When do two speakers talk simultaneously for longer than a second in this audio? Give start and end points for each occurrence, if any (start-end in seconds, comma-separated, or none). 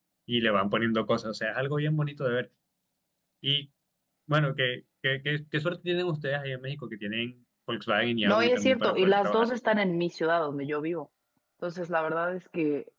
8.2-9.5